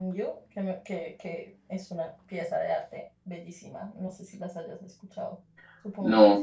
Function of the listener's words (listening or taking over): taking over